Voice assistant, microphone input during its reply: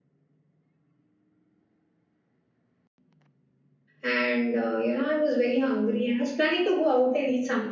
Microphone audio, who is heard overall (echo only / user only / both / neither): user only